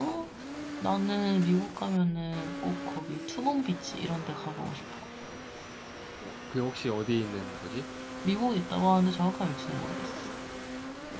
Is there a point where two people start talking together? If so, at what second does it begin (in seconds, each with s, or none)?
none